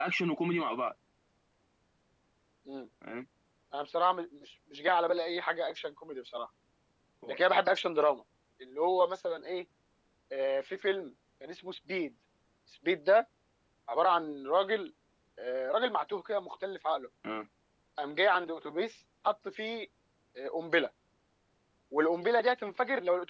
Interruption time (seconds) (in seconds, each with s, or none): none